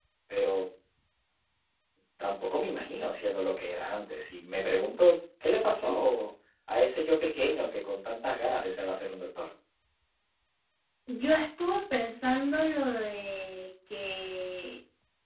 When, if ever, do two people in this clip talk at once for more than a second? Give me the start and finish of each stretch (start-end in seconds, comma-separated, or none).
none